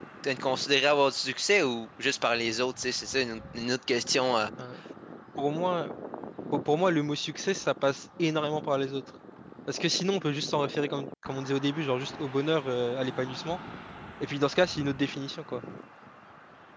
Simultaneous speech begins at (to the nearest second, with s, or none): none